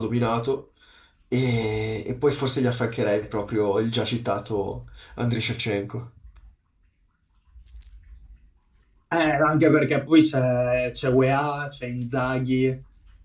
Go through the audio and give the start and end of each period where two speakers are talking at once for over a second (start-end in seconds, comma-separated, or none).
none